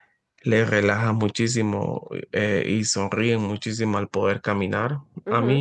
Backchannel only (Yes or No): Yes